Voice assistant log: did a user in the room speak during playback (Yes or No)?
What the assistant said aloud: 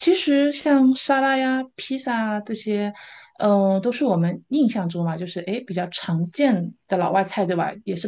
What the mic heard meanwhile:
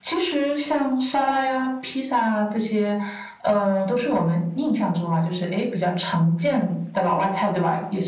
No